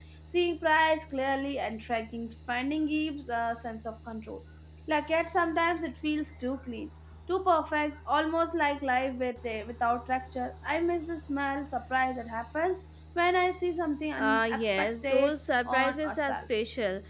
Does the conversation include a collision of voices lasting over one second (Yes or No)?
Yes